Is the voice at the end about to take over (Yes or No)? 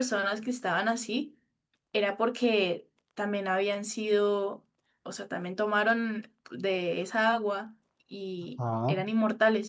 No